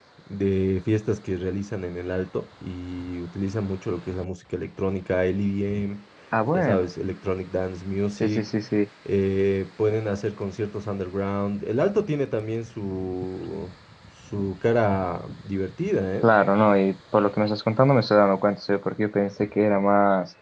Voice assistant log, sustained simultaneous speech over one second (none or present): none